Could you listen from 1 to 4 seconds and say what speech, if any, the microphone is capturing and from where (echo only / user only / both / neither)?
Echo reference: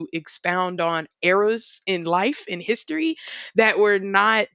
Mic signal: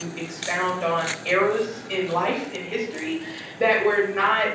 echo only